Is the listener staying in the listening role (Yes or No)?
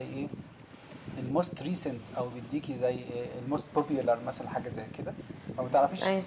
Yes